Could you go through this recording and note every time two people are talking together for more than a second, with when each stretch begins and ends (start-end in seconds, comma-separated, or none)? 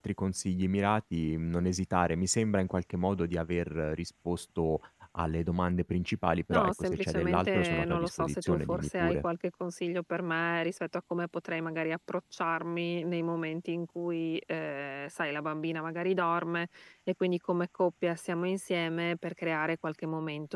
6.5-9.2